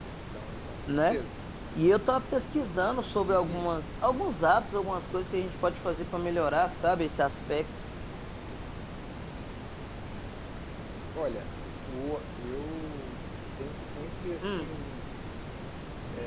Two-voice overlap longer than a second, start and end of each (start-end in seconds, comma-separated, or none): none